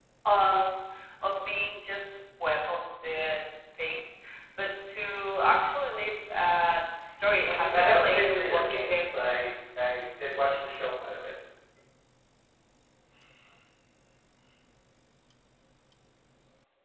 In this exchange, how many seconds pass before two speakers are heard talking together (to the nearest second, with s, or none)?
7 s